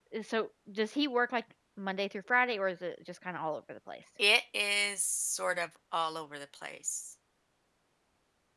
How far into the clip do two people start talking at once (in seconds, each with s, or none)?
none